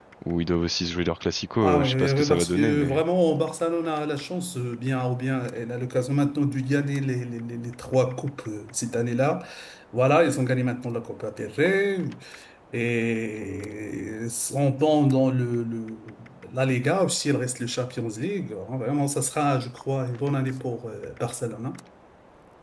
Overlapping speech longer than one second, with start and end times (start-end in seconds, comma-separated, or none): 1.6-3.0